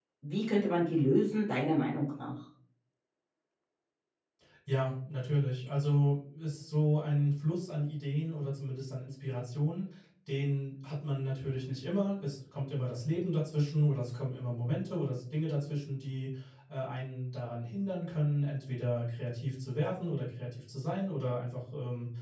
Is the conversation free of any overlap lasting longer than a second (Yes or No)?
Yes